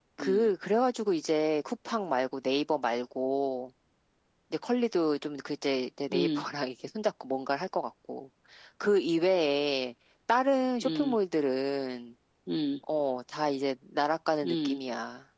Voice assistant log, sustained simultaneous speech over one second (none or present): none